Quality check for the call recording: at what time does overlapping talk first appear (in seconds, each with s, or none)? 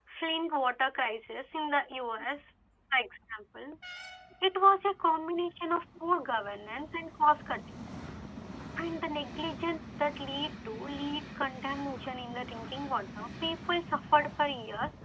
none